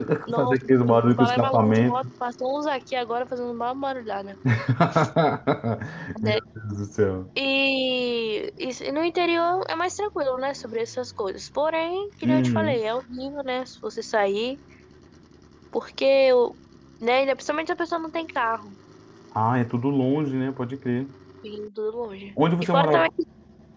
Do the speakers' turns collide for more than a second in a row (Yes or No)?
Yes